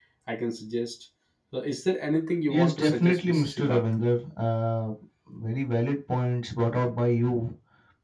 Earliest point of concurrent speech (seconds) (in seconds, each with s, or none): 2.5 s